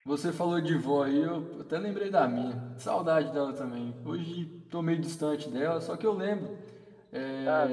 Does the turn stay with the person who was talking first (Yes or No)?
Yes